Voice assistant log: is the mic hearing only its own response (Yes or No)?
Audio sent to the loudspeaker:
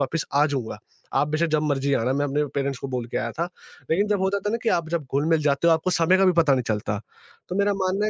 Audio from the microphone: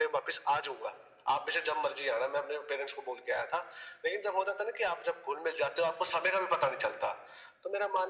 Yes